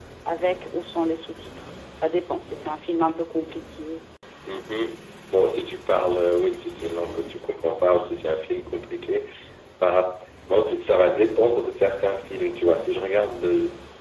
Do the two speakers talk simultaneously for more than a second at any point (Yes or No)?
No